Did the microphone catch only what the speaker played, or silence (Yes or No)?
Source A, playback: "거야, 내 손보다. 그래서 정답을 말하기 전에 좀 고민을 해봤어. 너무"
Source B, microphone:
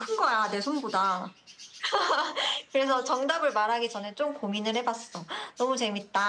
Yes